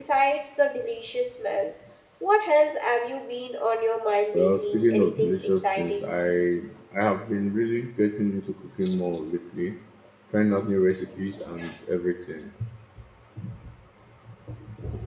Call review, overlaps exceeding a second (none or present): present